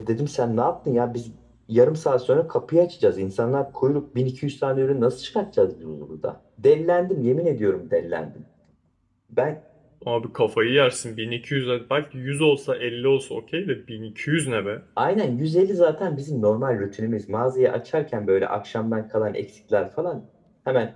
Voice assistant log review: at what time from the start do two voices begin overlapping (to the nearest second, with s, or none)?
none